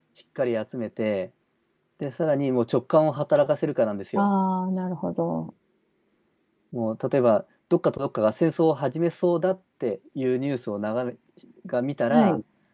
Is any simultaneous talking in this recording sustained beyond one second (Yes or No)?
No